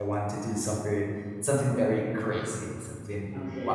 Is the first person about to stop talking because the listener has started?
No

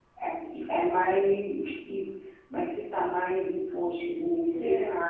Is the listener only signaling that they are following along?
Yes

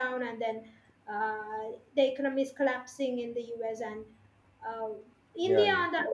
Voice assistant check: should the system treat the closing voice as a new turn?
No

